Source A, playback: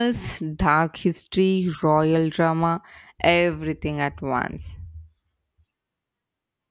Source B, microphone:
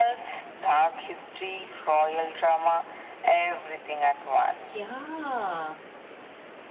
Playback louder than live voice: Yes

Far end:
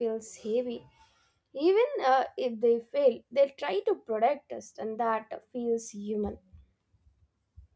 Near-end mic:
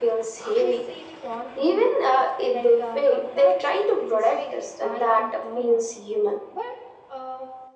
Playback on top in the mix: Yes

